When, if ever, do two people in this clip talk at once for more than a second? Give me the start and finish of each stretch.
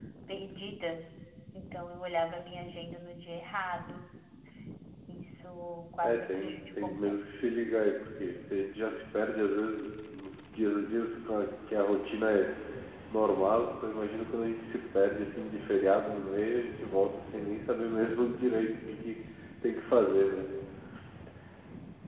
6.0-7.3

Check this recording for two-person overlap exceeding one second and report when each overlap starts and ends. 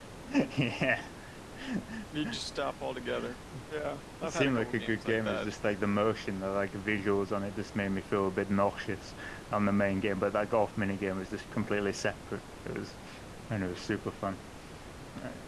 4.2-5.5

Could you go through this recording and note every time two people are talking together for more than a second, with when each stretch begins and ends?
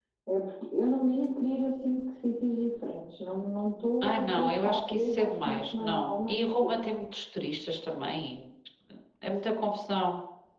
4.0-6.7

